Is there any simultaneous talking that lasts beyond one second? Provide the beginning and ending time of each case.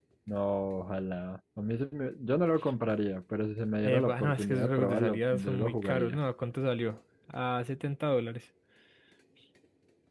3.8-6.2

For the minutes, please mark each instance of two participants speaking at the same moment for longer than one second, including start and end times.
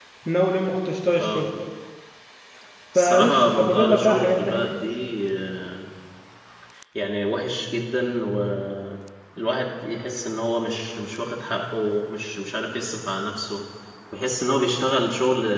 3.0-4.7

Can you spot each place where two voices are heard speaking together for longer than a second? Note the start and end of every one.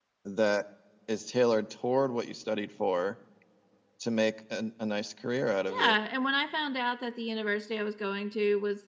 none

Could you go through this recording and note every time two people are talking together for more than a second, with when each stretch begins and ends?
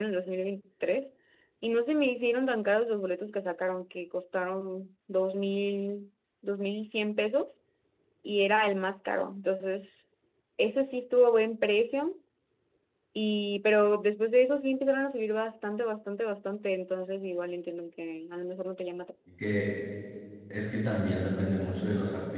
none

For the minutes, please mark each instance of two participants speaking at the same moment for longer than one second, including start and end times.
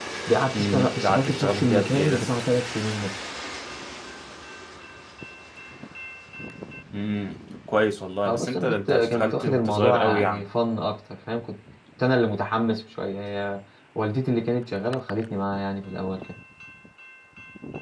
0.5-2.3, 8.2-10.5

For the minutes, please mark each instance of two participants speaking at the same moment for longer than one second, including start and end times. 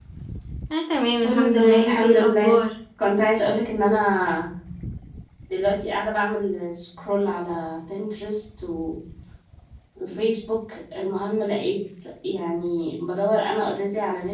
1.2-2.6

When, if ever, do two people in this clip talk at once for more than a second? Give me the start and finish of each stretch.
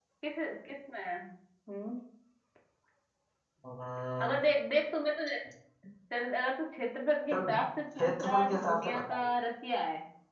8.0-9.2

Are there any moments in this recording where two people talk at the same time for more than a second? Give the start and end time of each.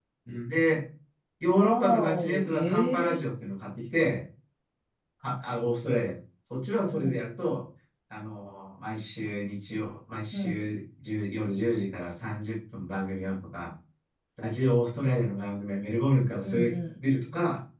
1.5-3.1

